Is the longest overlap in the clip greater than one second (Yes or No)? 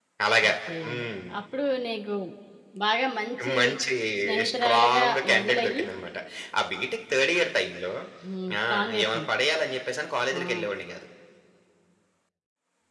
Yes